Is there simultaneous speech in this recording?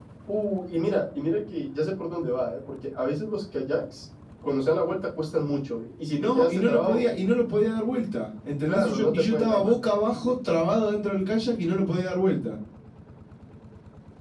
Yes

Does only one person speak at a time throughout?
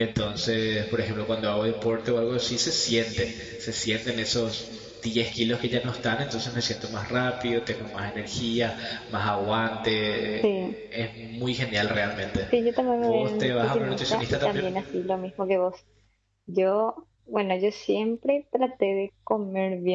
No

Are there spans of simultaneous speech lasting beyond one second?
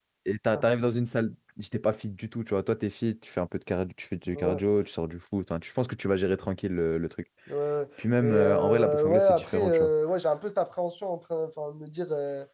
Yes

